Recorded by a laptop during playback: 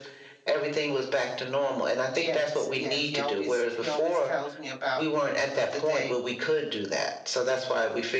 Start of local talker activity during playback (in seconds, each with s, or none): 2.1 s